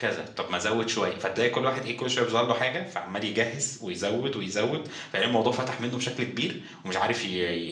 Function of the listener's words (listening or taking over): listening